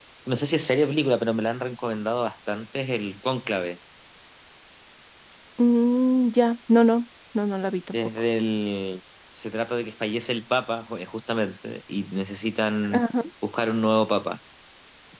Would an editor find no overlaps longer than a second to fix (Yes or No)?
Yes